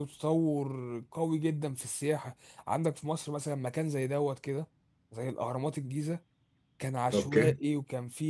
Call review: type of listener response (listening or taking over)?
listening